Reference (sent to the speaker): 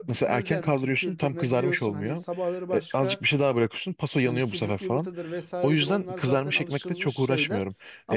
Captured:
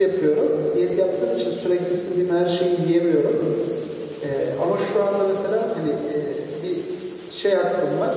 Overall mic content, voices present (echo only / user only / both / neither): user only